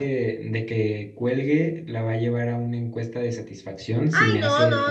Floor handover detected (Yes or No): Yes